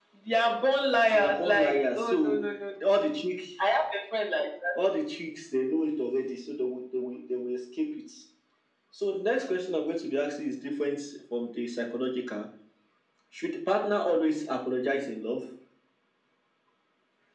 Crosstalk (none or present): present